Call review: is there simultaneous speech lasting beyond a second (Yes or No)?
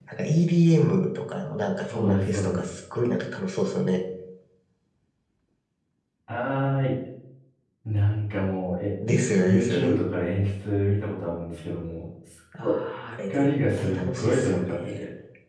Yes